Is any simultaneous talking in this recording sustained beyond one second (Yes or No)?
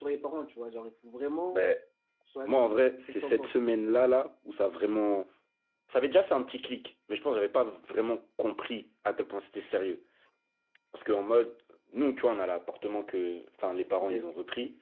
Yes